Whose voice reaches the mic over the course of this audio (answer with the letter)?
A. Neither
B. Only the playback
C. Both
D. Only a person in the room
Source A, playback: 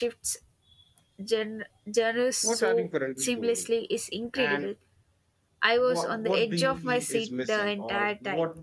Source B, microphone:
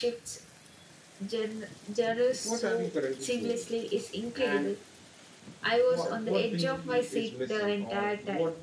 B